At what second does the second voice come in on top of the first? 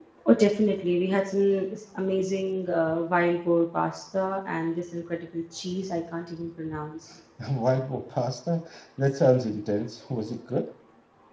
none

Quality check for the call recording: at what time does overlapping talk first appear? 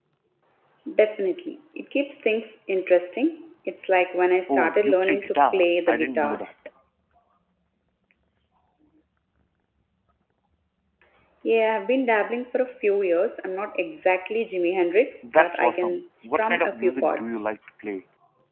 4 s

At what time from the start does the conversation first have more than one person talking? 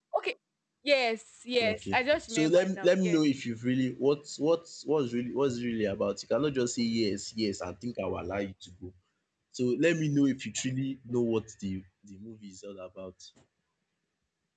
2 s

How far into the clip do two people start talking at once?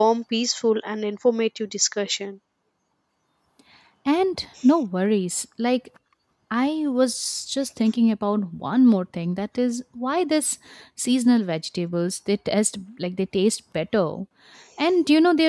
none

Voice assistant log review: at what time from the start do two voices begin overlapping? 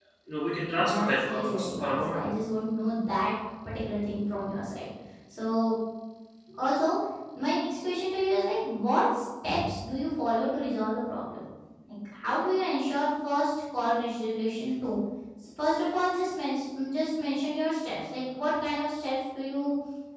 1 s

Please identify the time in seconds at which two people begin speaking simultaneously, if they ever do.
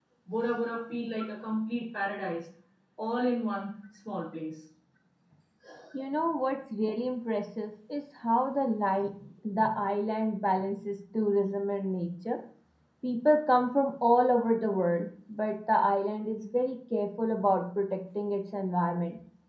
none

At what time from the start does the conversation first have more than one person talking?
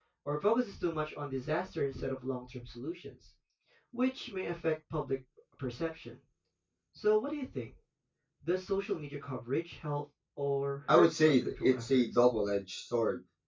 11 s

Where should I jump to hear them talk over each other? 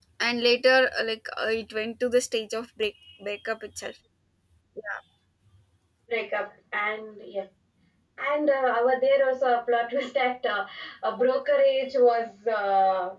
none

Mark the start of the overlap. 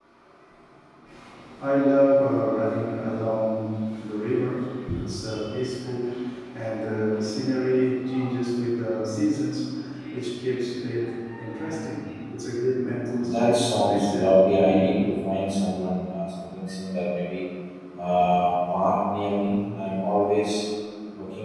13 s

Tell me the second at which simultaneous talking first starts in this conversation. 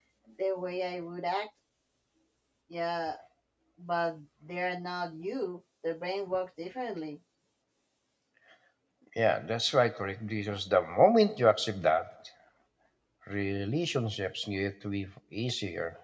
none

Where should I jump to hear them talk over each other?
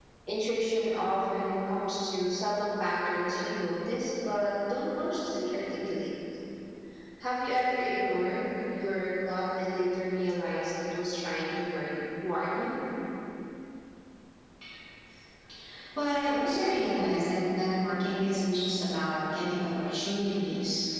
none

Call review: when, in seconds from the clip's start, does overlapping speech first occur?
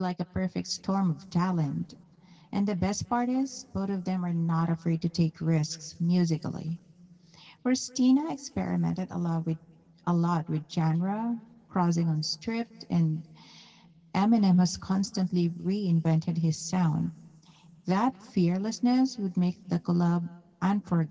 none

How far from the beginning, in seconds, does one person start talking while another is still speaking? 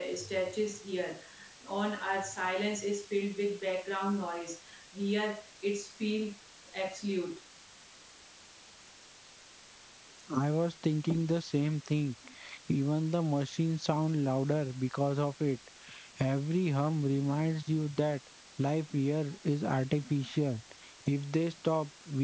none

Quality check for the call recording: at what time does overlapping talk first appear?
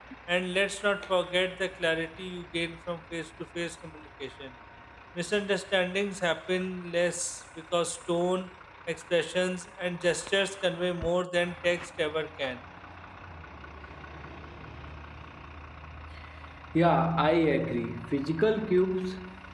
none

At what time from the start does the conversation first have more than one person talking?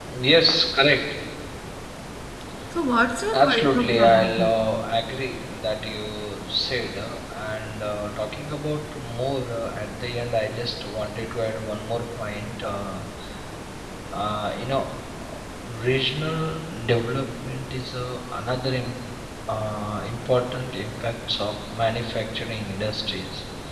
3 s

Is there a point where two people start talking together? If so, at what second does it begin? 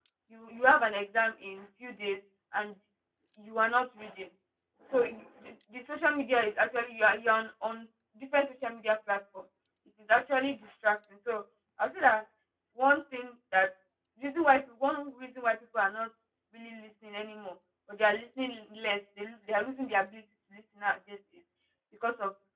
none

